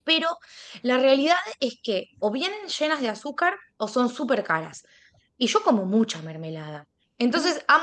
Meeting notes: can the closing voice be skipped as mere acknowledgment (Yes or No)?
Yes